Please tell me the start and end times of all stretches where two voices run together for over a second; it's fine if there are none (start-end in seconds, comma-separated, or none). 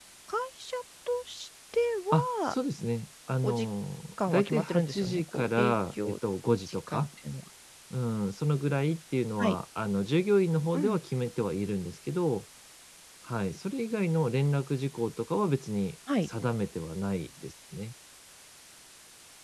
4.3-6.2